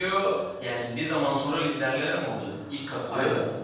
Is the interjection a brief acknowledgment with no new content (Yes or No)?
No